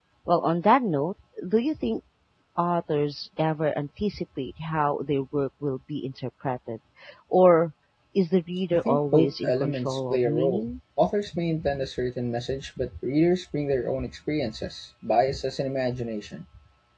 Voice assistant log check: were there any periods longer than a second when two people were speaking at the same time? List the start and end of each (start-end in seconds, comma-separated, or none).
8.7-10.8